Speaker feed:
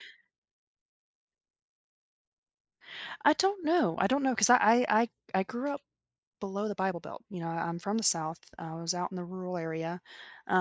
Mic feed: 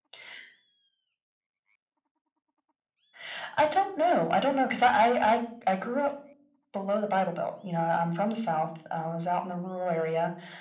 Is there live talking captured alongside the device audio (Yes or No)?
No